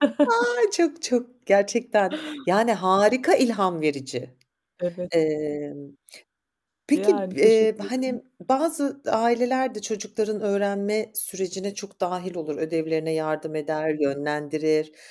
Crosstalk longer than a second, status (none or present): present